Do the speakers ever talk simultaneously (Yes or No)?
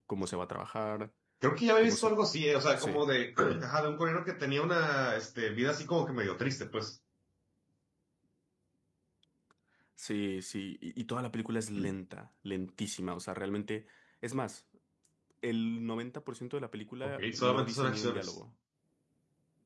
Yes